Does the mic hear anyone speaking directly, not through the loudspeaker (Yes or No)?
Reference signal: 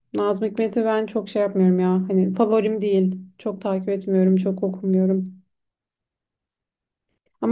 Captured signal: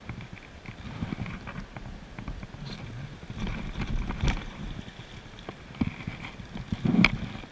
No